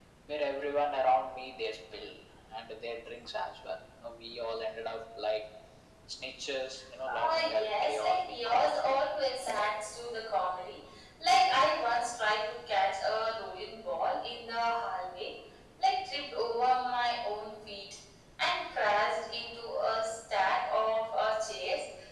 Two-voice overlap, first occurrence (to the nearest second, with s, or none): 7 s